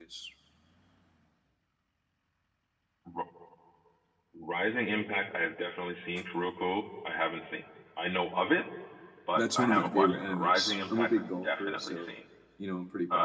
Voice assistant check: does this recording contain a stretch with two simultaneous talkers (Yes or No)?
Yes